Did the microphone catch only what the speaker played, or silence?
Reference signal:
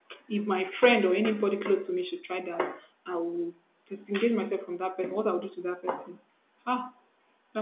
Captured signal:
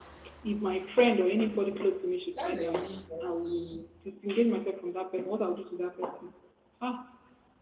No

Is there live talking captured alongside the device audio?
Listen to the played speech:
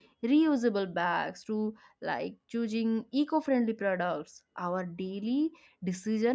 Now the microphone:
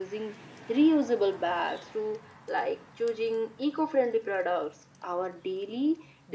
No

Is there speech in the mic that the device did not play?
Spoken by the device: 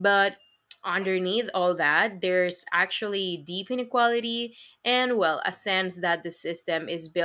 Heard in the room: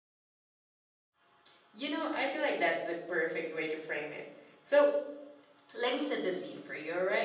Yes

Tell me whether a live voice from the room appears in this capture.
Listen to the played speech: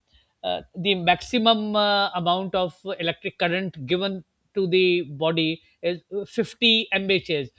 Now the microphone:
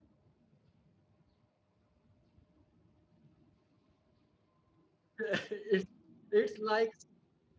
Yes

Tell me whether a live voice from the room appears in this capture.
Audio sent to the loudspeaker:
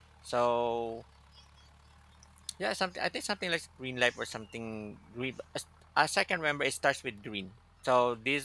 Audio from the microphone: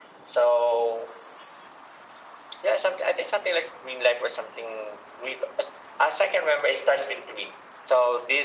No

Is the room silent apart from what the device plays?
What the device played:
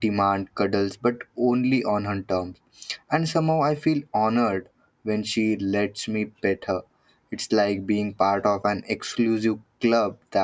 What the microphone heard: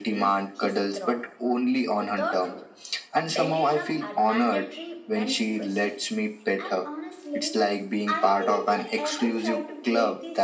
No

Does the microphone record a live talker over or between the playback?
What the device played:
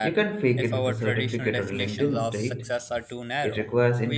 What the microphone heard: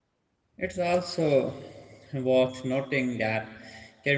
Yes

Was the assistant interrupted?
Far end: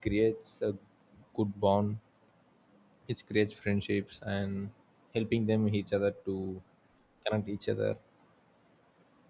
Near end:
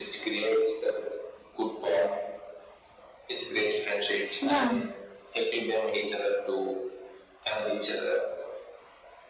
Yes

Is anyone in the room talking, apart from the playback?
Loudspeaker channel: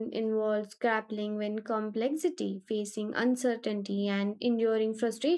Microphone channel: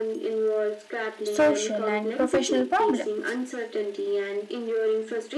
Yes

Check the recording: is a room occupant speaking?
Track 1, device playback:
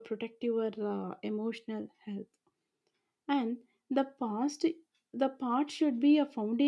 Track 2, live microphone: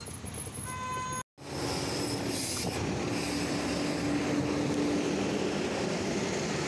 No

